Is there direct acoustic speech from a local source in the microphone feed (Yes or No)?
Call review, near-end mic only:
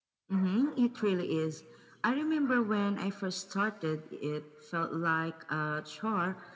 No